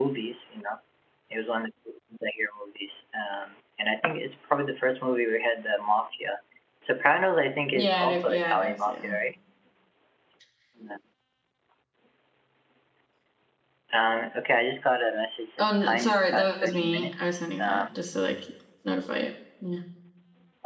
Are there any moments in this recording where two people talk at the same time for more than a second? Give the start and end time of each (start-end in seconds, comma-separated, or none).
7.7-9.1, 15.6-18.0